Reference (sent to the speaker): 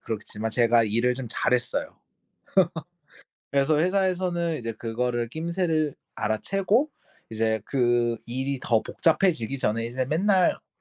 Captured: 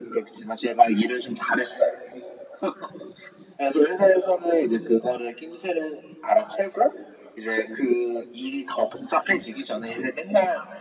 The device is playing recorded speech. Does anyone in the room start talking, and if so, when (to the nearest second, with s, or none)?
none